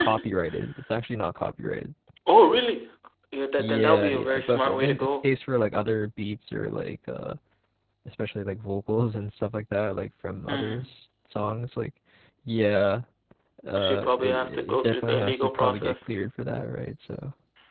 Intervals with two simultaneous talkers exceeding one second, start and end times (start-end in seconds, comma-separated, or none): 3.6-5.3, 13.8-16.0